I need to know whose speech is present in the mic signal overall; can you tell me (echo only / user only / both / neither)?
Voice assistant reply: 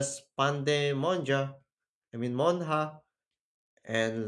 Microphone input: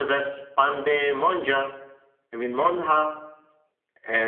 echo only